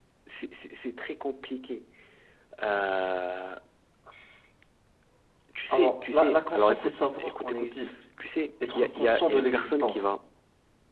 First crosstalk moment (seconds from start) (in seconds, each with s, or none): 5.7 s